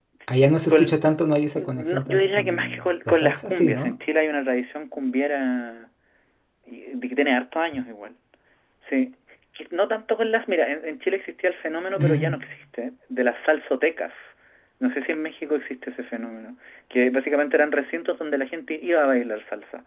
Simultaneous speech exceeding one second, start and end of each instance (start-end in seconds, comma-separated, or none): 1.6-4.0